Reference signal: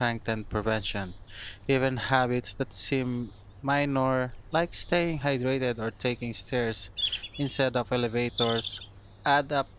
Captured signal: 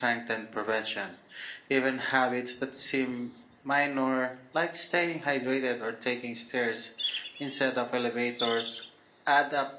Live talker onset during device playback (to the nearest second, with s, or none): none